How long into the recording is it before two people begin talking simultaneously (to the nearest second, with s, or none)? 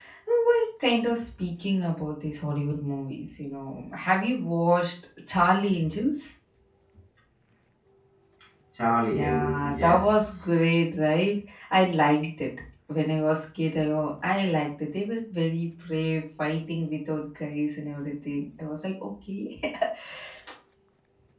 9 s